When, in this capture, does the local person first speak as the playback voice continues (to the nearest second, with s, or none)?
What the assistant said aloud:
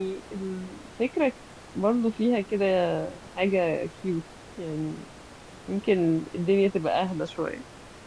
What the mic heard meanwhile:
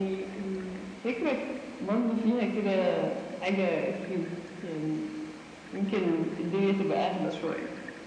none